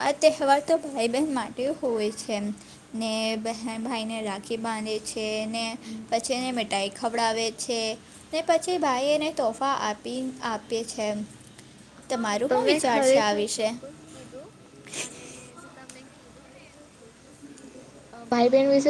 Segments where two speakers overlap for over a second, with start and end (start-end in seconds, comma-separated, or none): 12.2-13.4